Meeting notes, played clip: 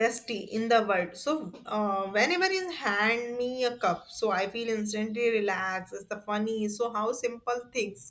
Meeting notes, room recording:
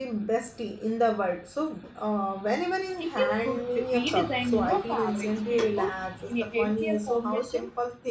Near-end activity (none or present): present